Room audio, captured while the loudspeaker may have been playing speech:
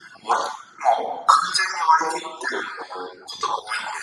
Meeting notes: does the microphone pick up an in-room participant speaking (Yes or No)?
No